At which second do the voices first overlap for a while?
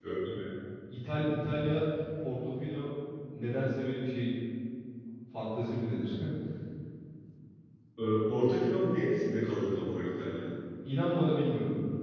none

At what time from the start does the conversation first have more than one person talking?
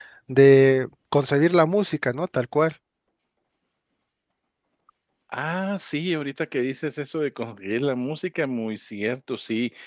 none

